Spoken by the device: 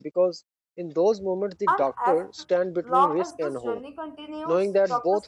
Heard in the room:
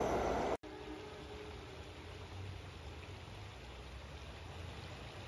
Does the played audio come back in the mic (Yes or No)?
No